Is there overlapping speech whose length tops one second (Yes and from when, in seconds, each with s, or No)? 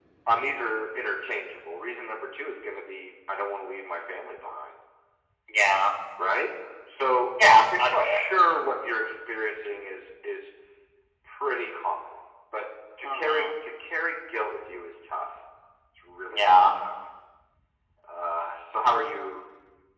No